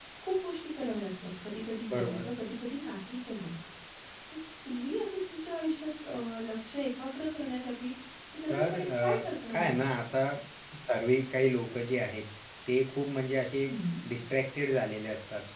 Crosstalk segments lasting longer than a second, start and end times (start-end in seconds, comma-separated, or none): 8.5-9.7